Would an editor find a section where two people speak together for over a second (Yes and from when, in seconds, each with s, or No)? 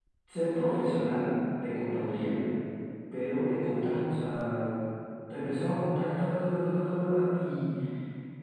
No